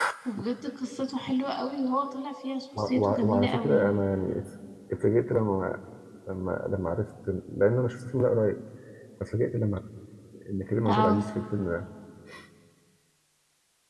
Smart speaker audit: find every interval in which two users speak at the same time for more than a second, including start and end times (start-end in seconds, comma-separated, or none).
2.8-4.0